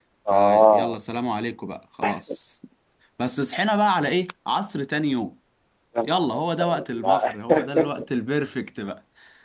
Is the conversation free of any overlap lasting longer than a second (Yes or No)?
No